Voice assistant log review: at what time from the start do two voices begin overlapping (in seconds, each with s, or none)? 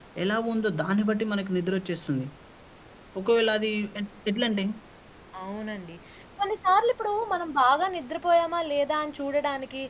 none